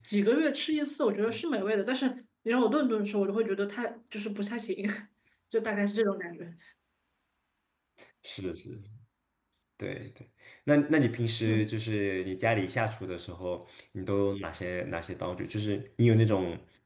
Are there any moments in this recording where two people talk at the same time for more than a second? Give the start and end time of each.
none

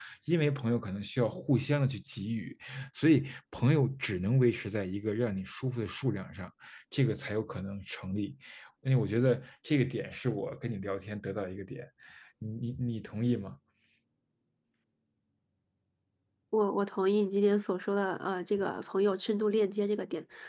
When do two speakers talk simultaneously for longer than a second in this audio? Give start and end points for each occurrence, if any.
none

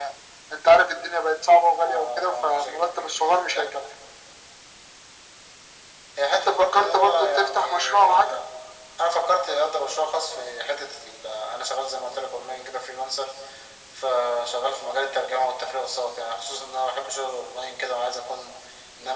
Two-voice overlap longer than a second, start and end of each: 1.8-3.1, 6.3-8.4

